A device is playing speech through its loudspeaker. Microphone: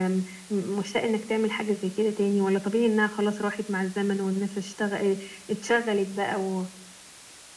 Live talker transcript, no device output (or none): none